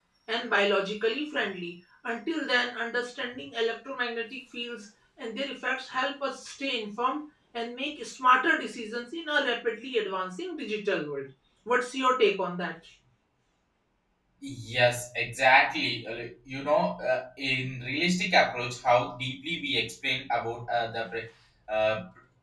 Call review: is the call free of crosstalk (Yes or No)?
Yes